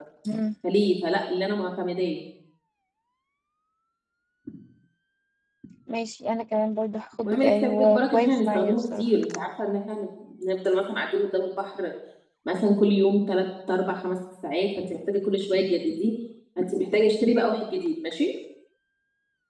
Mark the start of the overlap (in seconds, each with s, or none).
7.2 s